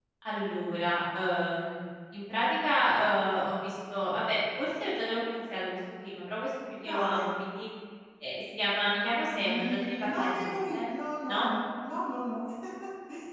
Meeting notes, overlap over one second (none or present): present